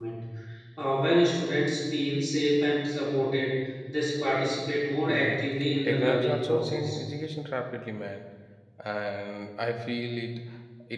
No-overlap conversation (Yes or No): No